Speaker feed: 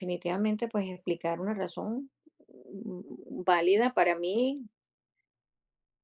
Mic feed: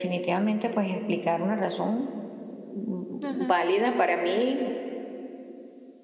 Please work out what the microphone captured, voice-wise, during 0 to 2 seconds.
echo only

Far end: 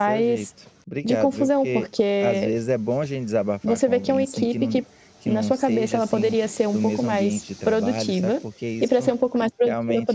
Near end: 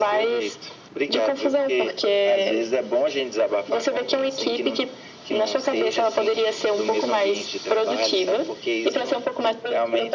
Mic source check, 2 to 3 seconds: echo only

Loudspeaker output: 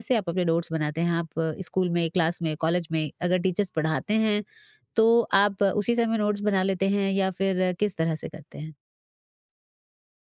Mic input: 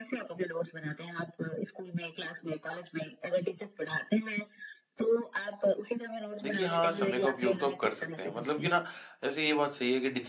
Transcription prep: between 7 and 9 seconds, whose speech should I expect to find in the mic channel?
both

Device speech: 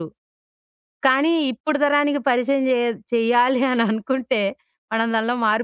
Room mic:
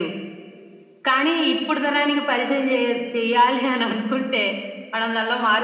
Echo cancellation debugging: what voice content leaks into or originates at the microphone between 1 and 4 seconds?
echo only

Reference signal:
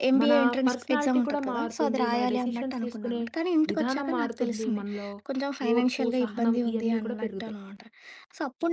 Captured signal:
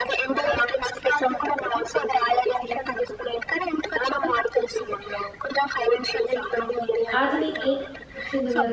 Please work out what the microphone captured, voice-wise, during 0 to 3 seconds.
echo only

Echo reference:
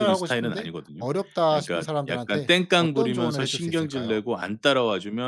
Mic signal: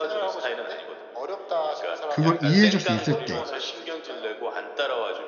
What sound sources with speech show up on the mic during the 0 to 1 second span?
echo only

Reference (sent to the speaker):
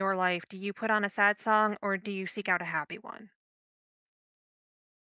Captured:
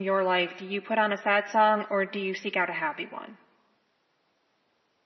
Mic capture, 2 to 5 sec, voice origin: echo only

